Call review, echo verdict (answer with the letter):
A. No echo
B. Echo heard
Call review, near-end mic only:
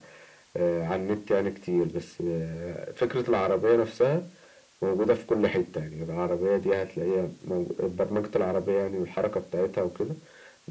B